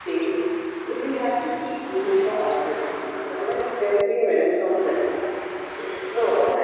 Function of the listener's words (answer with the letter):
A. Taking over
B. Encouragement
A